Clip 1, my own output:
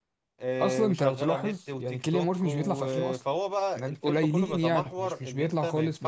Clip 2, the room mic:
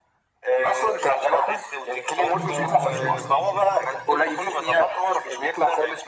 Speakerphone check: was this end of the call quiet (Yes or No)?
No